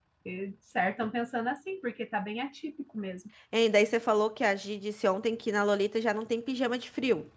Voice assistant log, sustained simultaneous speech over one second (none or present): none